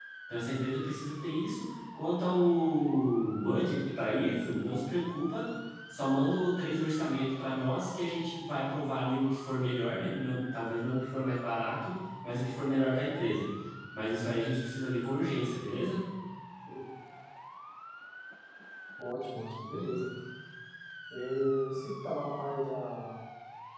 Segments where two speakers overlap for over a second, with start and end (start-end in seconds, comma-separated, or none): none